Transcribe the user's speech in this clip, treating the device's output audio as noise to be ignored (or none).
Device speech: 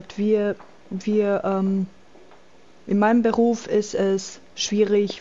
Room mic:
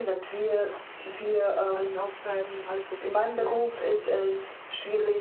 alles aufschreiben, alles dokumentieren und